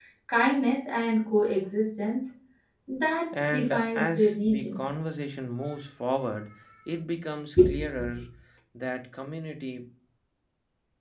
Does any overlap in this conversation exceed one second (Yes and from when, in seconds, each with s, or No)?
Yes, from 3.5 s